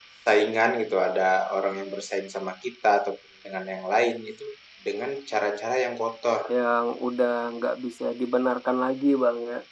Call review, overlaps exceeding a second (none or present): none